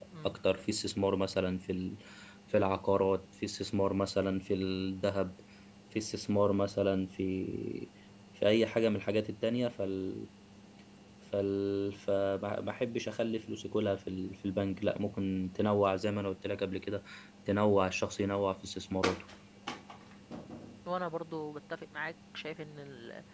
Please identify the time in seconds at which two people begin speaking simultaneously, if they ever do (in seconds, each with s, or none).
none